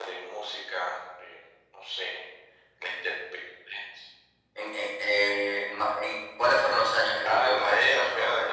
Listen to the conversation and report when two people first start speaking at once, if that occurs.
7.2 s

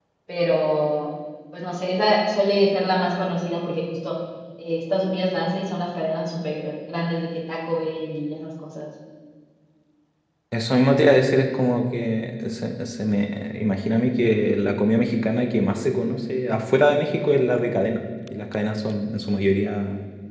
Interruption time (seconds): none

